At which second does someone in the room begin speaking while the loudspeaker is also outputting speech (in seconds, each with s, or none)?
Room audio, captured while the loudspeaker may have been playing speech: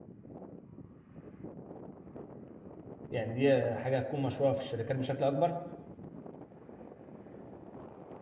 3.1 s